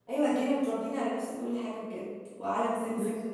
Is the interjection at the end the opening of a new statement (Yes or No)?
No